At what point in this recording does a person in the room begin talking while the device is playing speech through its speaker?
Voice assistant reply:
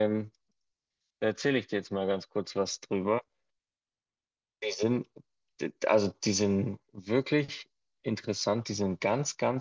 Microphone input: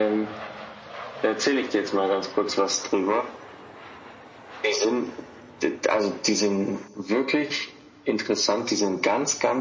none

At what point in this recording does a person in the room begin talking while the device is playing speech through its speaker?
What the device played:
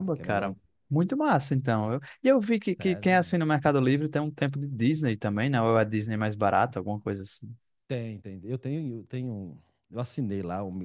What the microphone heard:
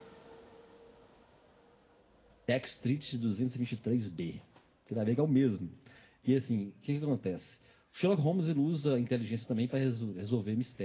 2.5 s

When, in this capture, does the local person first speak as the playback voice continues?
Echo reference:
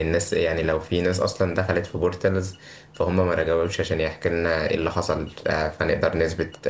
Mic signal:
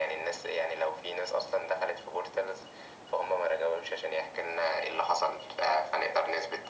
none

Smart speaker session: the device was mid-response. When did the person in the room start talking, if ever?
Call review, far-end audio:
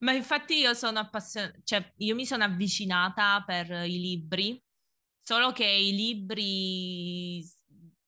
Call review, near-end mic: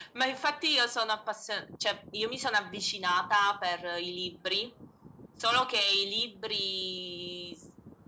none

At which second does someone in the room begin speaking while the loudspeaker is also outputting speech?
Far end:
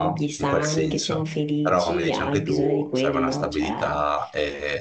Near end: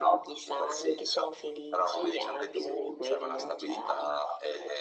none

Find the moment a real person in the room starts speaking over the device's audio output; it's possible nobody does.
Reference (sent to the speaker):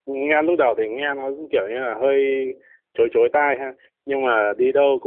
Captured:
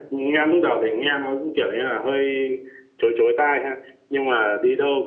none

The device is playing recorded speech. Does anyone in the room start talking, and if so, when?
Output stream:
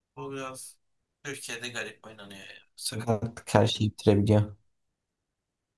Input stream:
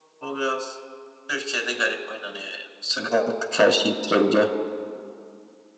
none

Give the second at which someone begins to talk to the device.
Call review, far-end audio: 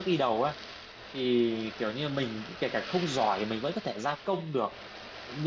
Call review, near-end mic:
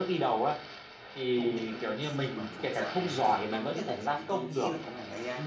1.3 s

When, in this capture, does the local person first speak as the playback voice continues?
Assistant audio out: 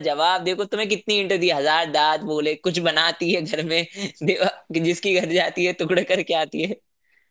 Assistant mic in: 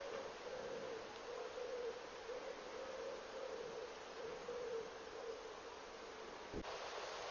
none

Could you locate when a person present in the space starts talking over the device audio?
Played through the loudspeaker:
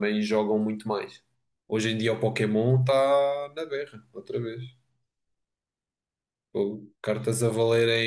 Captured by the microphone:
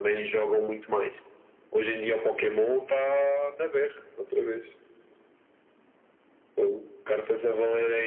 none

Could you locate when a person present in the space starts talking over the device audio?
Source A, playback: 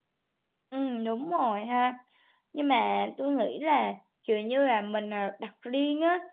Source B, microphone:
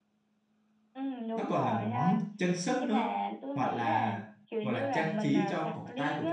1.3 s

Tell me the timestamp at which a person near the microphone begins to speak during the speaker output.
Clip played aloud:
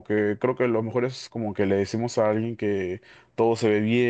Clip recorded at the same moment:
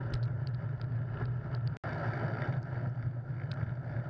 none

